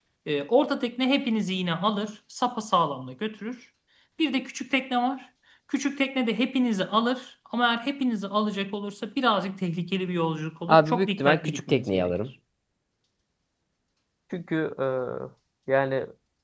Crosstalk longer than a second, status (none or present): present